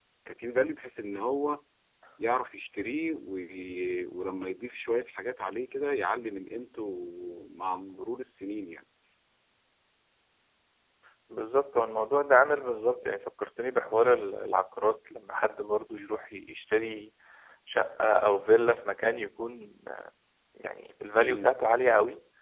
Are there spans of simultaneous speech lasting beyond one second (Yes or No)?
No